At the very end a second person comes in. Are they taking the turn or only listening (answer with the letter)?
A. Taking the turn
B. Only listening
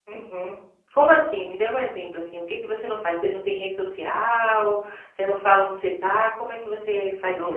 A